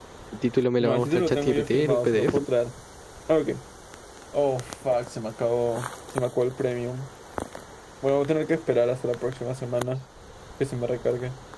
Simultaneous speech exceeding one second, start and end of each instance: 0.8-2.4

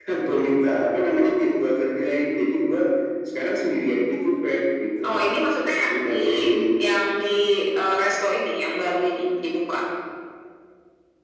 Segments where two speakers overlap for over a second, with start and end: none

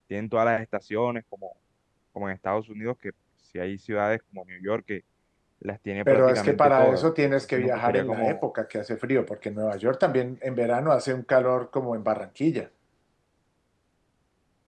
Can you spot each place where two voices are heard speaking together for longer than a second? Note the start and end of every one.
6.1-8.4

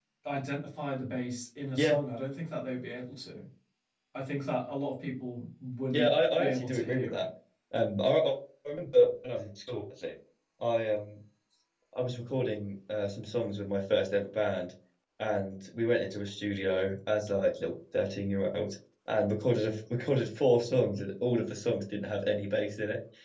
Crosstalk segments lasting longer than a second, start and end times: 5.9-7.2

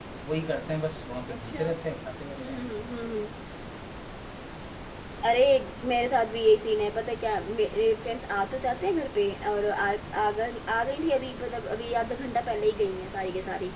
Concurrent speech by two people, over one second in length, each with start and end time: none

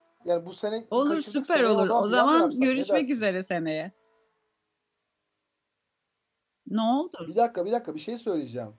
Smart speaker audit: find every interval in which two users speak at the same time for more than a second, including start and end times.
0.9-3.1

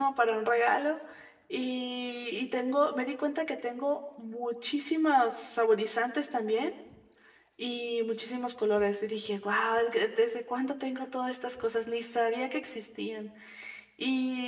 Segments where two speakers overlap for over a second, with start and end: none

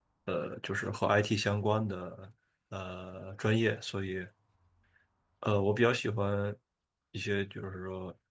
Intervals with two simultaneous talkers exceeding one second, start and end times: none

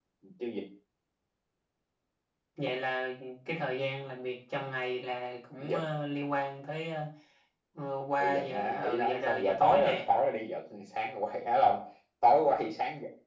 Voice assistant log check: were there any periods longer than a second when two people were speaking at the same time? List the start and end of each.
8.2-10.1

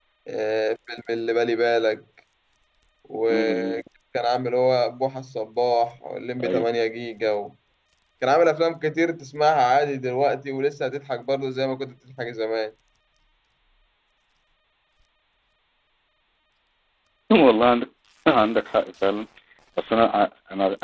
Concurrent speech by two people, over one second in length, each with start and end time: none

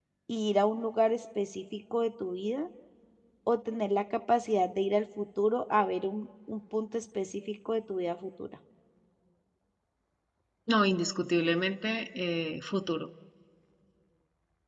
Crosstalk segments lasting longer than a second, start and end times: none

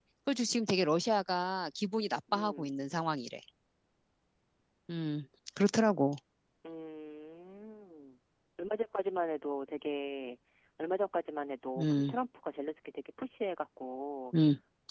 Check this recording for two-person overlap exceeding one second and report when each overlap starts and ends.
none

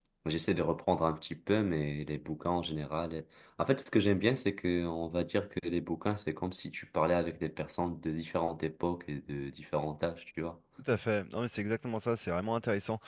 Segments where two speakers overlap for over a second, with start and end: none

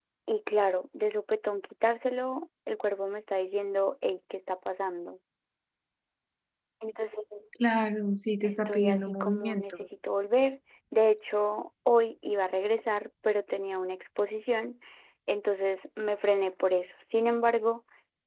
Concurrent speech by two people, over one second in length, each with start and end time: 8.4-9.9

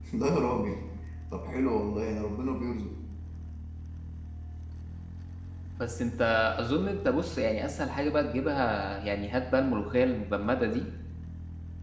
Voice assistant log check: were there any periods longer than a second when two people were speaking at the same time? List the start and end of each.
none

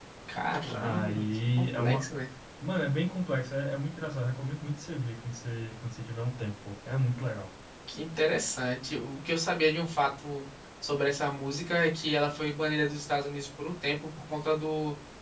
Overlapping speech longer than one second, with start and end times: 0.8-2.0

